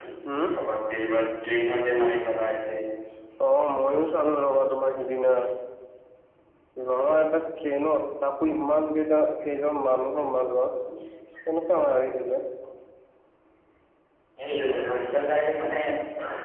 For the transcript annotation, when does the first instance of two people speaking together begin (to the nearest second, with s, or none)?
none